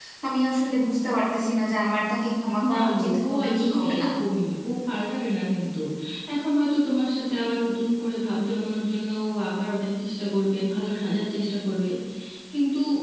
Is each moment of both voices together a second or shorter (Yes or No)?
No